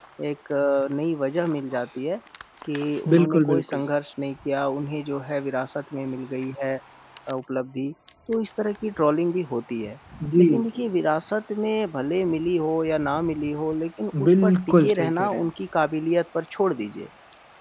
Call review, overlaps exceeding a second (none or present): present